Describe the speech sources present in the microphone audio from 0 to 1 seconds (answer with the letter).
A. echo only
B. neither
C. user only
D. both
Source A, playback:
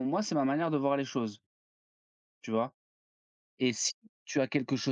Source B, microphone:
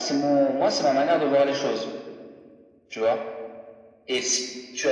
A